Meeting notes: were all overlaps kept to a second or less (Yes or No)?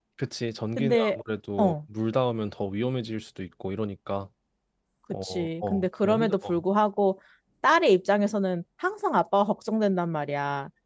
No